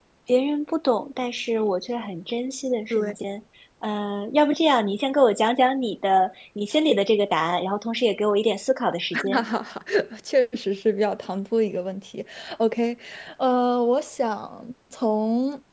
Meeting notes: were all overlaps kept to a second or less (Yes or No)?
Yes